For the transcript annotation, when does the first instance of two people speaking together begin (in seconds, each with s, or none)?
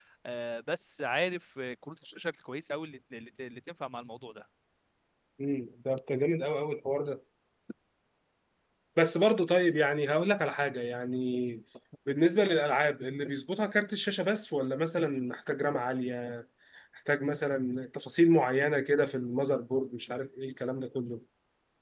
none